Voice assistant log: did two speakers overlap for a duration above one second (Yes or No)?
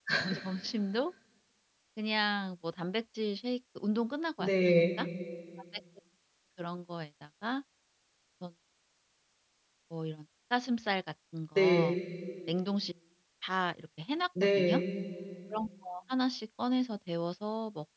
No